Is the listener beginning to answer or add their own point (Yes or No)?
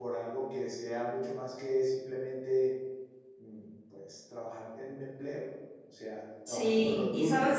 Yes